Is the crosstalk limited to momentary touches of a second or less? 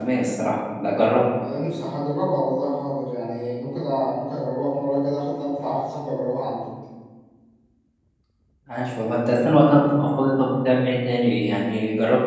Yes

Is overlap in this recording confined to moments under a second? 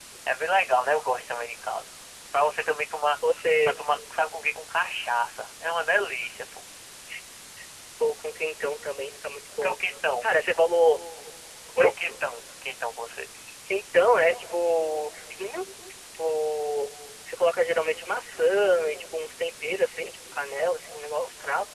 Yes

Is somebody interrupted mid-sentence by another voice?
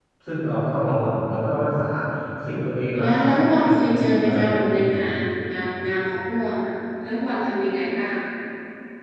Yes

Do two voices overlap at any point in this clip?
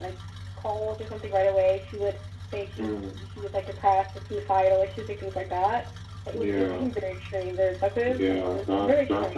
Yes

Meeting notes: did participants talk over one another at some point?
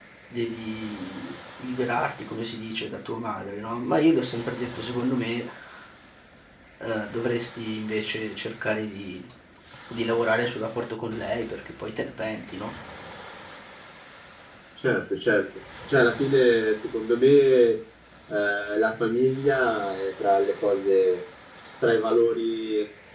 No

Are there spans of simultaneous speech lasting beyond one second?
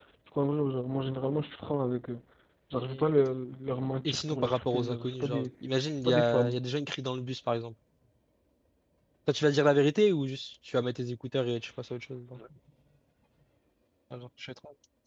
Yes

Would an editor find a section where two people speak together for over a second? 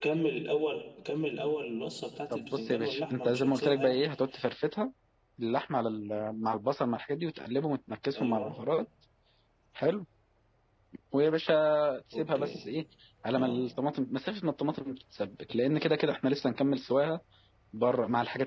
Yes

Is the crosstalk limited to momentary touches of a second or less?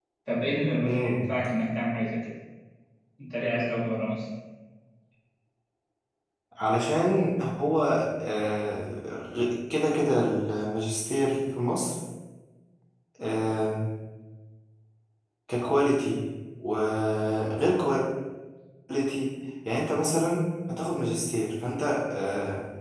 Yes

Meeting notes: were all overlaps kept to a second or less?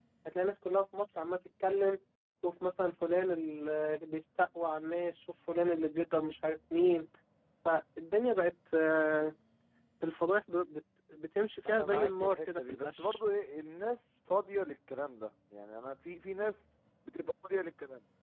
No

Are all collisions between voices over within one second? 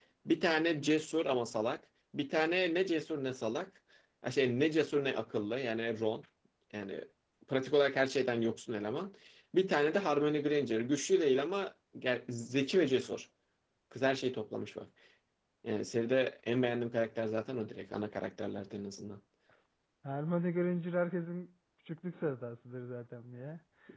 Yes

